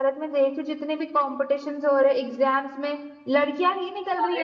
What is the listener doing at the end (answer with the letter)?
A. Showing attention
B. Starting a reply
B